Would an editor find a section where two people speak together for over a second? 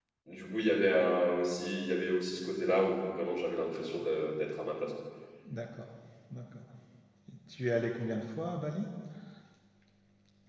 No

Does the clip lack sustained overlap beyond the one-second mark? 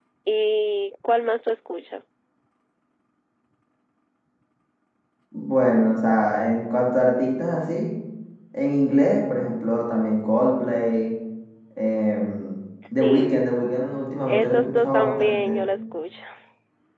No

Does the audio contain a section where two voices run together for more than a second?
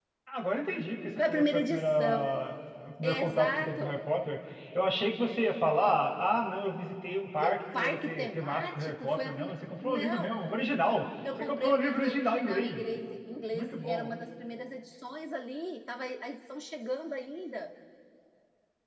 Yes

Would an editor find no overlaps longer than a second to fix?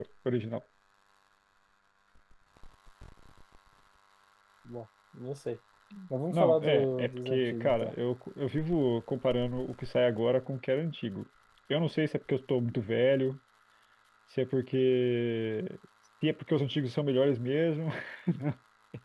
No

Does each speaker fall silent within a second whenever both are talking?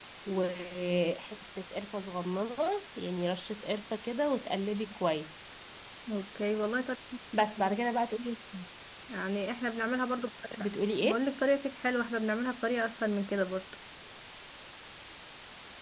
Yes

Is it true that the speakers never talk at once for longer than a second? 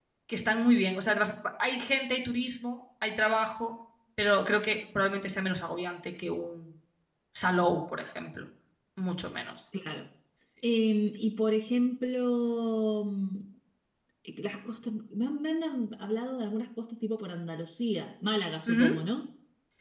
Yes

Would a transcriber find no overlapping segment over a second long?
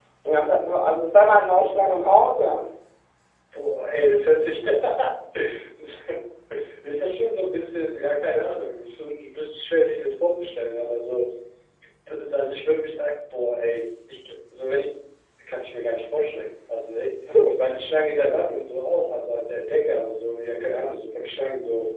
Yes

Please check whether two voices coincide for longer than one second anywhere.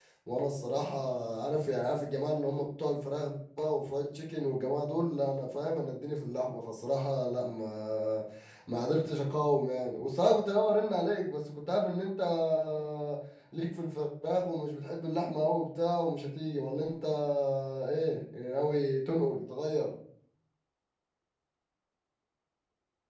No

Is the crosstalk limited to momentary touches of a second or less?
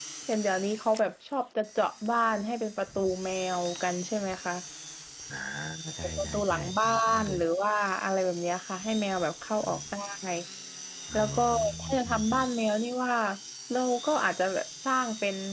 No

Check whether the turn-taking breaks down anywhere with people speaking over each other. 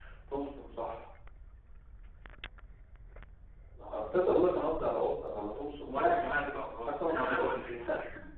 Yes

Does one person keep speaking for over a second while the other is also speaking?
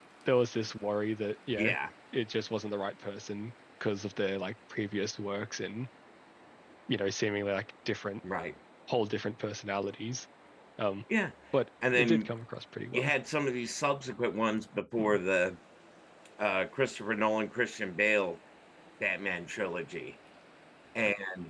No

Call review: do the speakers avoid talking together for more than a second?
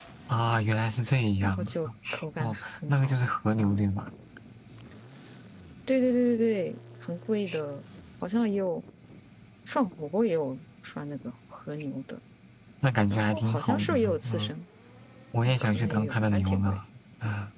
No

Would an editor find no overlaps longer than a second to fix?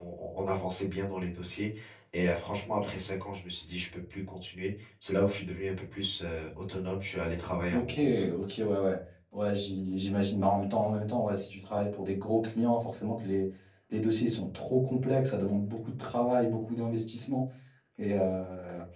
Yes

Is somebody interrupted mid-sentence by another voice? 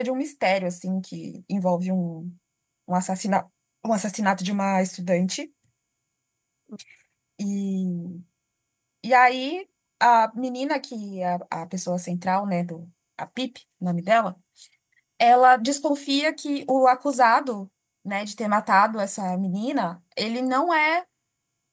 No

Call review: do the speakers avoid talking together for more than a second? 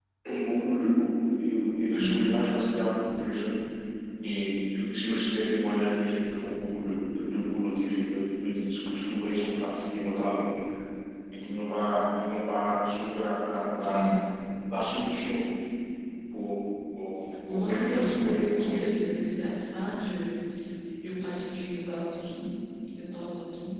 No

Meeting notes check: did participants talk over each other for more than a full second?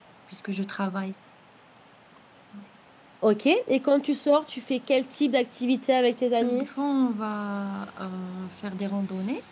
No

